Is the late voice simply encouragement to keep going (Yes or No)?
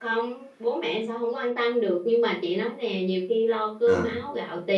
Yes